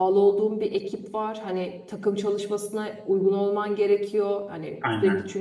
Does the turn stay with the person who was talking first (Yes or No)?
Yes